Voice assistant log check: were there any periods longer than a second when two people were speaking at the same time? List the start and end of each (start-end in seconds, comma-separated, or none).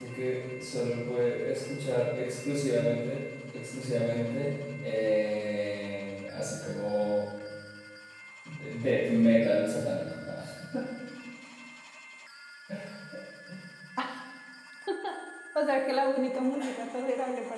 none